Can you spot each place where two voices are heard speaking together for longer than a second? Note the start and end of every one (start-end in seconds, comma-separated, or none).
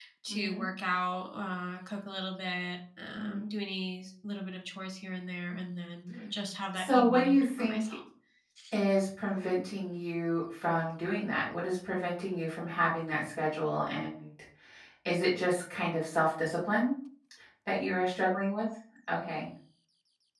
6.7-7.9